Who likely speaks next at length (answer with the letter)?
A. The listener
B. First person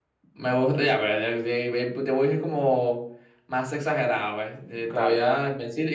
B